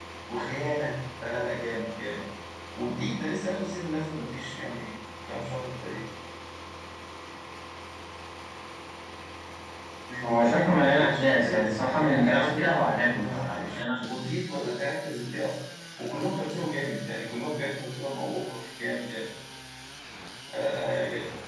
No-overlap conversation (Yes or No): No